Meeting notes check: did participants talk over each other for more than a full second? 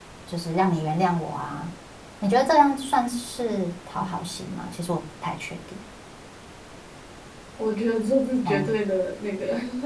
No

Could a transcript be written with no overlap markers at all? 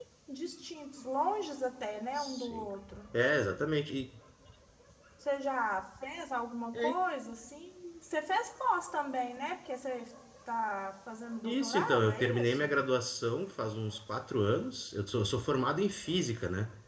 No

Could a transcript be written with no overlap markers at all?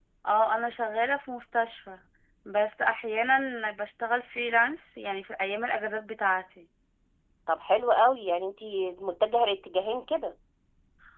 Yes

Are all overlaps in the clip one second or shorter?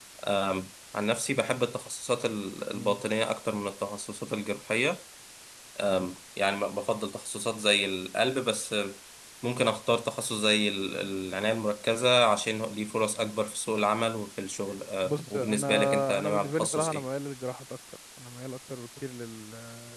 No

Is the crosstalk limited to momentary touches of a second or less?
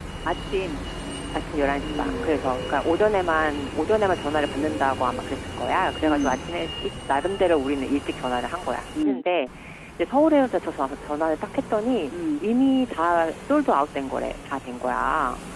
Yes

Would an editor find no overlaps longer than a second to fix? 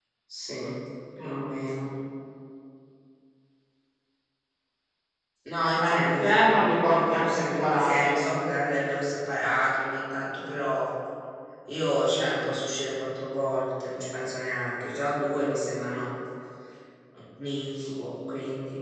No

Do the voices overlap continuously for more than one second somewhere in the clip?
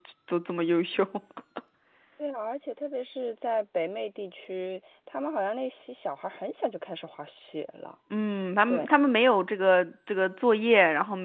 No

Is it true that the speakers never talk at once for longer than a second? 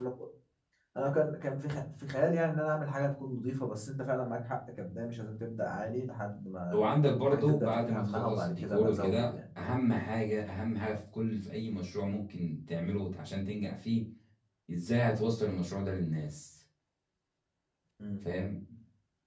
No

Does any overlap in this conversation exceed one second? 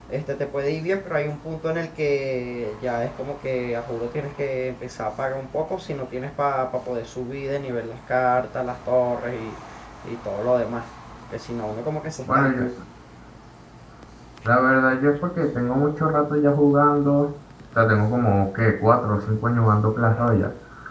No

